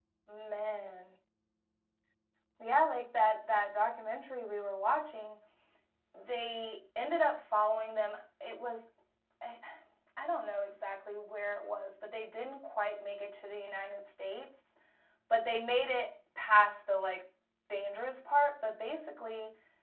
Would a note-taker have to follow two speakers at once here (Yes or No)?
No